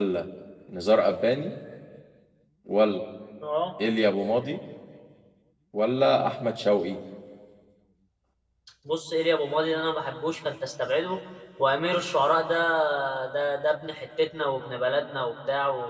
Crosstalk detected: No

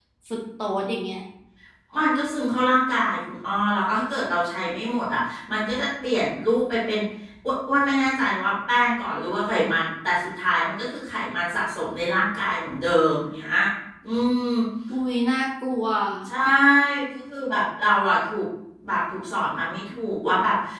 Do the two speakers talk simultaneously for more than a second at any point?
No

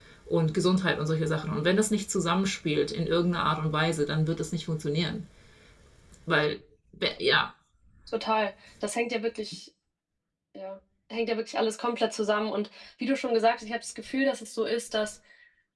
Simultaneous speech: No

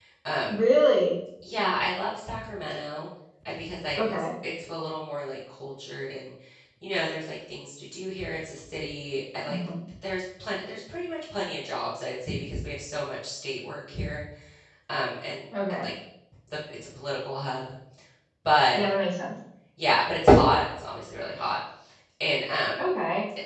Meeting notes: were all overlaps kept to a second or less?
Yes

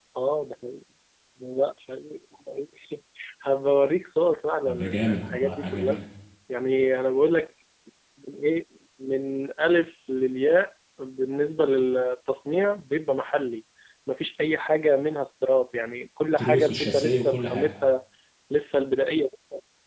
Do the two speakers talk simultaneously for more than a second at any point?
Yes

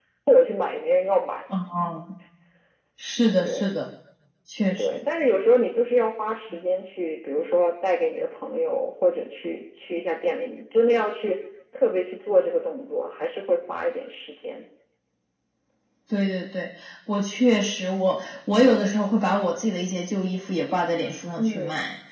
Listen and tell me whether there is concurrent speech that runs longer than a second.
No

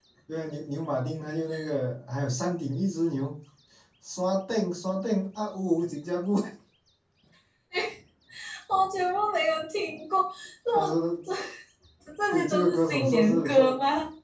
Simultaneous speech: Yes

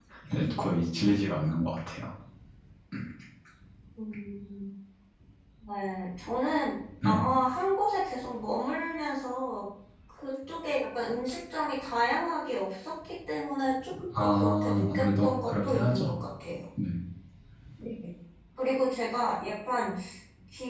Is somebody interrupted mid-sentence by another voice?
Yes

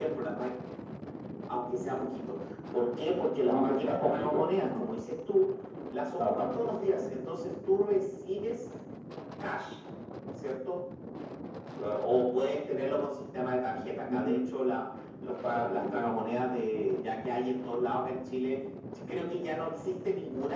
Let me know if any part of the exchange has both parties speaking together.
Yes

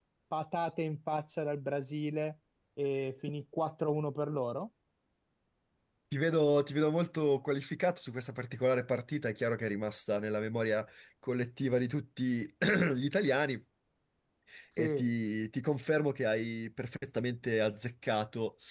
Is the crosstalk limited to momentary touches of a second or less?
Yes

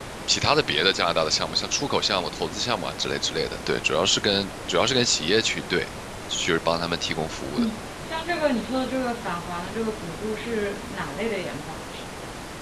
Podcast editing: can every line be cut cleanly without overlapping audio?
Yes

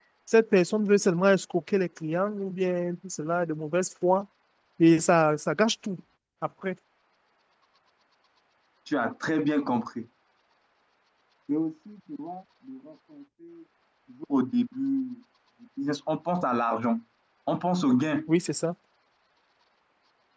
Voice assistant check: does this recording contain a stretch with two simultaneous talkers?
No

